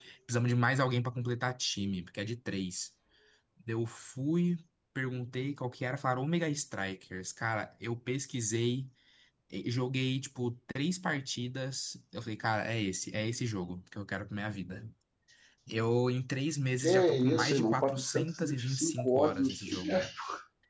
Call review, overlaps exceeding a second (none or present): present